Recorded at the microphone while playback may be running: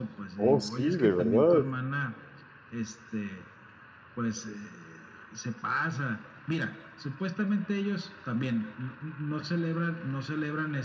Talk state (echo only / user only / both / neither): both